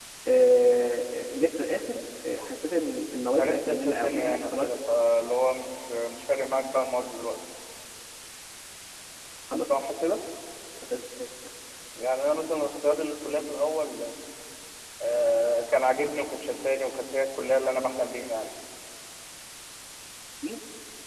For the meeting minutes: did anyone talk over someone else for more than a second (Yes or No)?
Yes